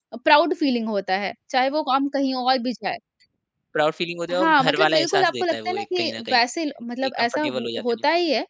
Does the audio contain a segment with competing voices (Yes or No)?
Yes